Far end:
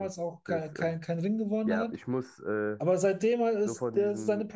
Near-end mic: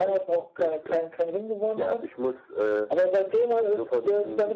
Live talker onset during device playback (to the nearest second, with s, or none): none